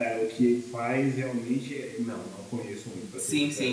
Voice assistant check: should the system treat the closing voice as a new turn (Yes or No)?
Yes